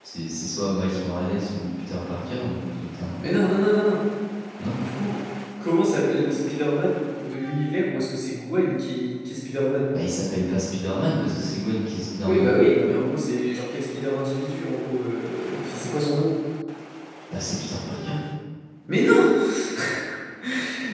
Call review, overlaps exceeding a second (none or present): none